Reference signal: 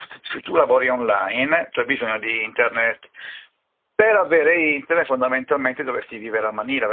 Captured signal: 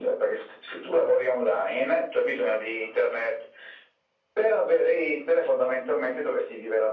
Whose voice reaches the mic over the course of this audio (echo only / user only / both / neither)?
echo only